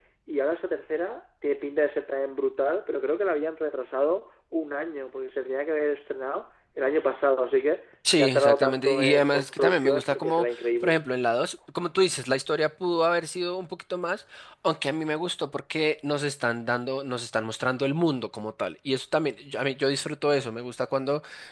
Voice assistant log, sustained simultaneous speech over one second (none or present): present